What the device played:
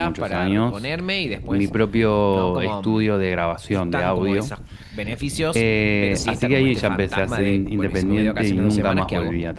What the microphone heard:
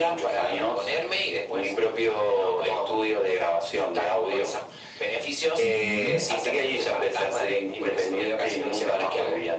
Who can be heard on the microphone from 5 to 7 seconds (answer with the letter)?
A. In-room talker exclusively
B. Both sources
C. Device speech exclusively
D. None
B